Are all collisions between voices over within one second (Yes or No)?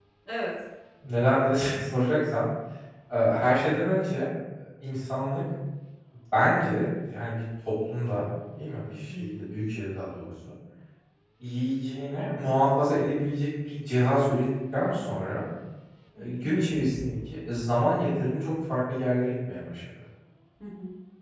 Yes